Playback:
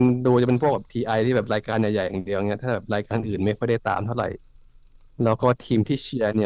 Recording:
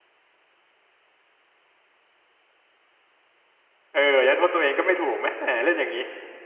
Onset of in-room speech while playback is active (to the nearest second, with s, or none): 4 s